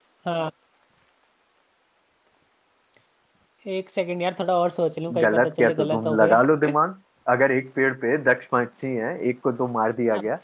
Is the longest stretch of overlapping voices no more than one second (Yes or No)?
No